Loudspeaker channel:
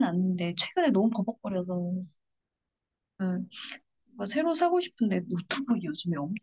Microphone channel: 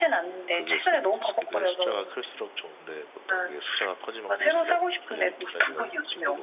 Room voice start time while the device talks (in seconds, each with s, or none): 0.5 s